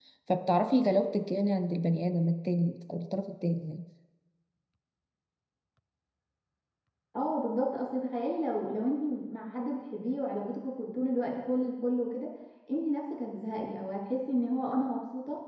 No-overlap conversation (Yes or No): Yes